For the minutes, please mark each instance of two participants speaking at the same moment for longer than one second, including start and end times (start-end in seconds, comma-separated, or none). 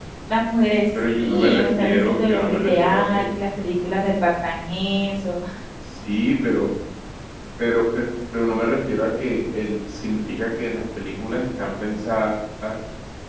1.1-3.3